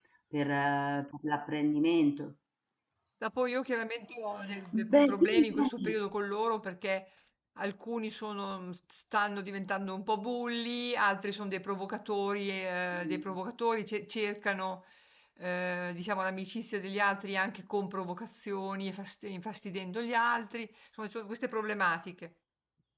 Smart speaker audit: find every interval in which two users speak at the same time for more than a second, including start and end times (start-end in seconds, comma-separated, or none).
4.7-6.0